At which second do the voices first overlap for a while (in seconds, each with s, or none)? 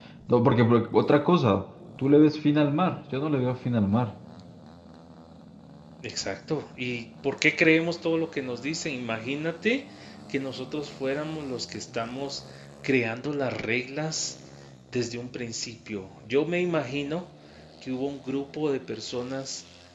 none